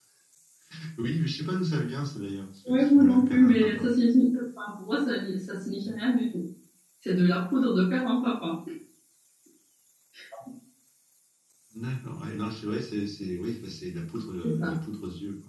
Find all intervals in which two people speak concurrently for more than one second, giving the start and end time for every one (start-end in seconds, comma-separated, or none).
2.7-3.9